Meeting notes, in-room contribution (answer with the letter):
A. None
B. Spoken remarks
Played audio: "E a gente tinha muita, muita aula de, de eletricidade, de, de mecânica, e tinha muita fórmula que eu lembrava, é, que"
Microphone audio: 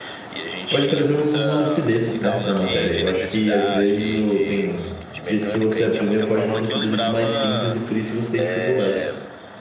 B